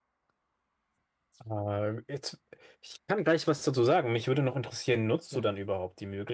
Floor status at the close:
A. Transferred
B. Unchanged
B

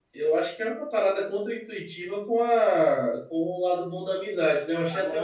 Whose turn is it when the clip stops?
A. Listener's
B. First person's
A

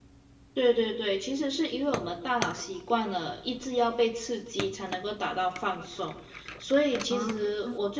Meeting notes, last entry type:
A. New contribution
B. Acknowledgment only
B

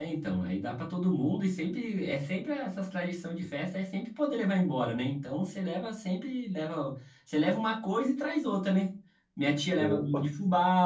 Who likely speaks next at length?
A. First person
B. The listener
A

